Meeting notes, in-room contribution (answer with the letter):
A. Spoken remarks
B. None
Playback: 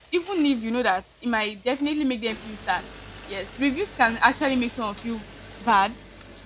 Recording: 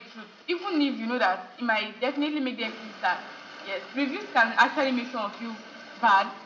B